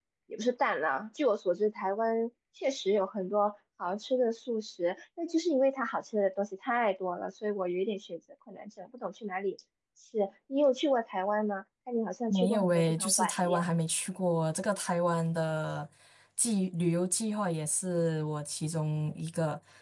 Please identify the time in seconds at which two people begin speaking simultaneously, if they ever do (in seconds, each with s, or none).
12.3 s